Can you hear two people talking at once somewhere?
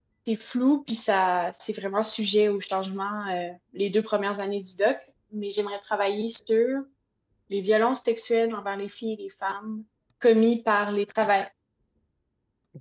No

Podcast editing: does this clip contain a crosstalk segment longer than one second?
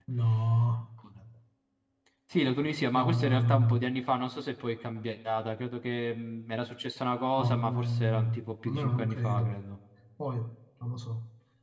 Yes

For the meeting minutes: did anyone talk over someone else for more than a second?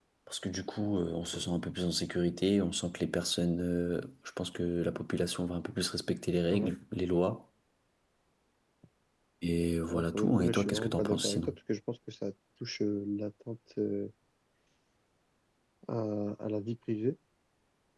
Yes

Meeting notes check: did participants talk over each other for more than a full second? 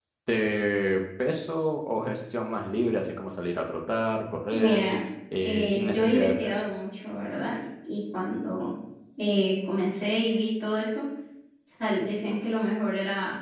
Yes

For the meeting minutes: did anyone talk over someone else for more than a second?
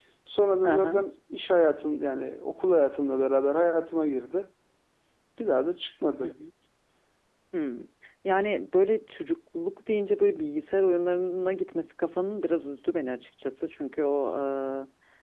No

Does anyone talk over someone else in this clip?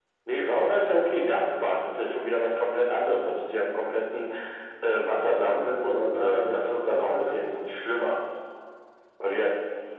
Yes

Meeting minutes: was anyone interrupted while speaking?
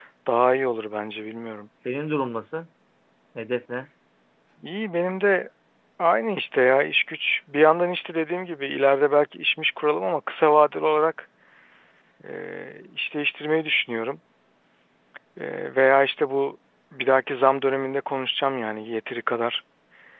No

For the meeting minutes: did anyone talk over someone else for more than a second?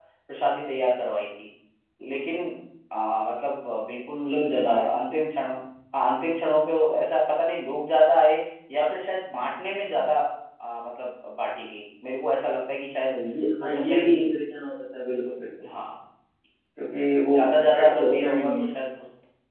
Yes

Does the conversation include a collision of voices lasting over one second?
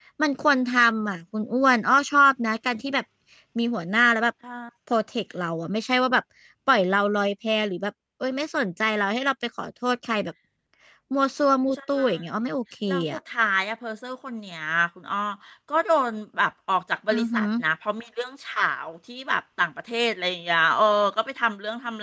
No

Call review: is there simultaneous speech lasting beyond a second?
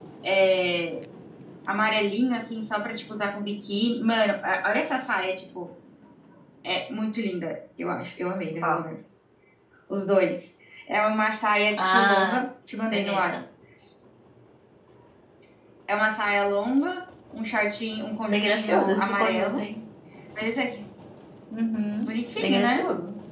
Yes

